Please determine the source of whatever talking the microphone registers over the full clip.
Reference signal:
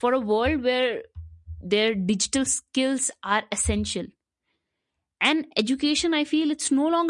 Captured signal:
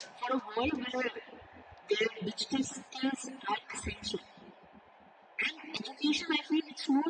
echo only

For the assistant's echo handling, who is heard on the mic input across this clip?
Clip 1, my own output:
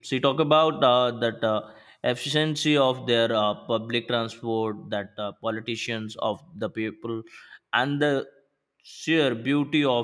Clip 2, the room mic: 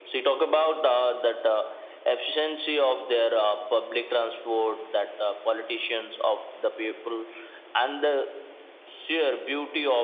echo only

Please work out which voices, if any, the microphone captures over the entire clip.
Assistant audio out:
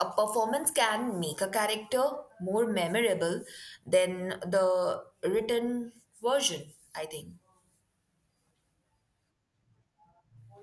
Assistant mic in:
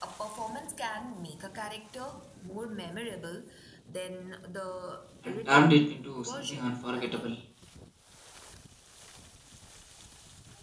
both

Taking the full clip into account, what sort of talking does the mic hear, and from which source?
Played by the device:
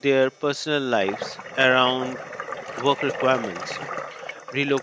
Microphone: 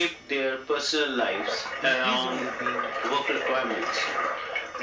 both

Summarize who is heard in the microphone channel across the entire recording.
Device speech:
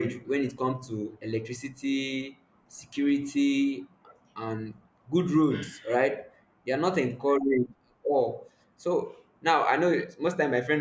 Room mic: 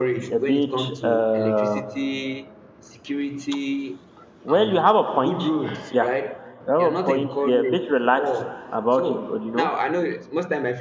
both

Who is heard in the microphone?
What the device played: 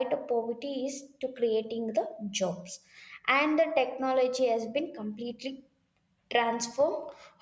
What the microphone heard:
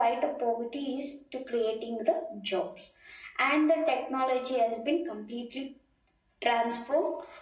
echo only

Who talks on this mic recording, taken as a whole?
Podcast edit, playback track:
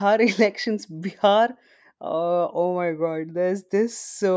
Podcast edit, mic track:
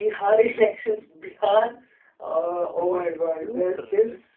both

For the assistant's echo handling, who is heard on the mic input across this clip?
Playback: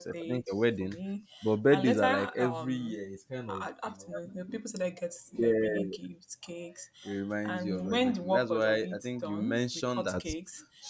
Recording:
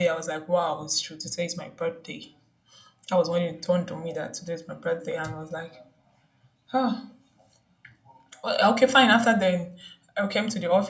user only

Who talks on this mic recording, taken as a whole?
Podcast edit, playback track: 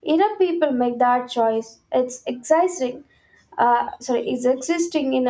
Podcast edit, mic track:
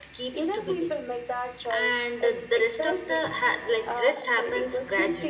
both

